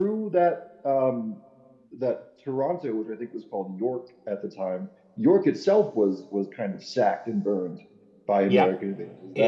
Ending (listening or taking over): taking over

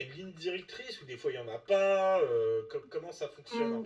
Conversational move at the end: taking over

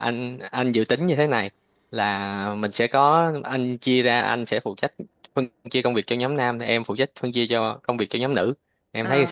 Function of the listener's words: taking over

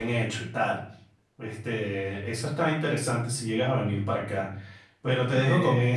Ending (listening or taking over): listening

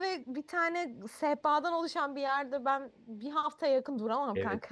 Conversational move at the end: taking over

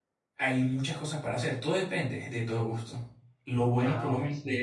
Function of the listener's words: listening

